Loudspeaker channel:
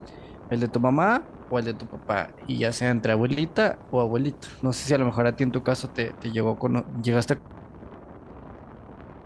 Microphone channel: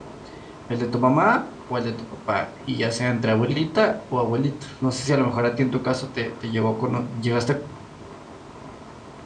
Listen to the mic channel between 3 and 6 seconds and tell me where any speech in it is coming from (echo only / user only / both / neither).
echo only